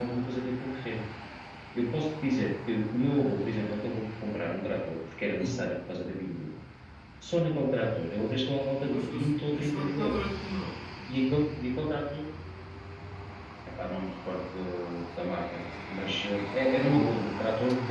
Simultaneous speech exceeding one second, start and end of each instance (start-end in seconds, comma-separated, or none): 8.9-10.3